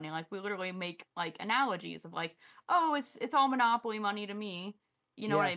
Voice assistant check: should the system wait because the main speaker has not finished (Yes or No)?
Yes